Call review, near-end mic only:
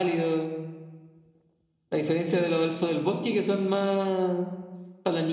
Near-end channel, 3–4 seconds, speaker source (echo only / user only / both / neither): echo only